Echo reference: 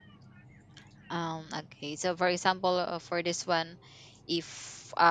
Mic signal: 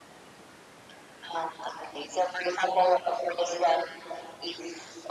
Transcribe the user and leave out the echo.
none

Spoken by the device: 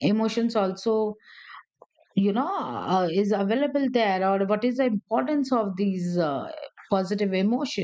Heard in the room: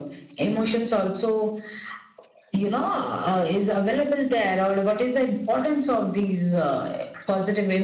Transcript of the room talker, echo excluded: none

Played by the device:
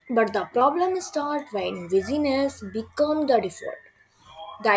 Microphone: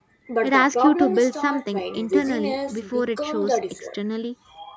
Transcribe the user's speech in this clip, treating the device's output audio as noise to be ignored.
It asks you to build something internally before it shows externally.

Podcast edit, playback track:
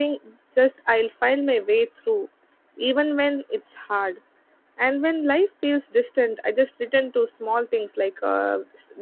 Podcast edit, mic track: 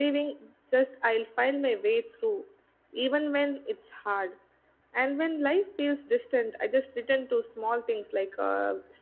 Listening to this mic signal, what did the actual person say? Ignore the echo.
none

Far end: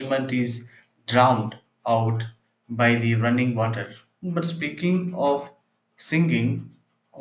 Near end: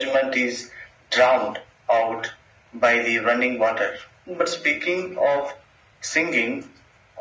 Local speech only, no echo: none

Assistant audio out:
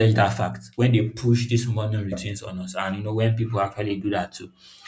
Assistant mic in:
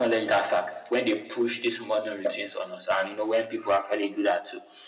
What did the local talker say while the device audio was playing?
none

